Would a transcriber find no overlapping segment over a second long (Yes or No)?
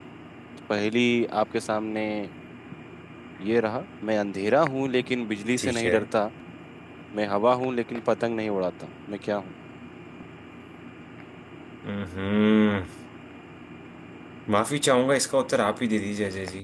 Yes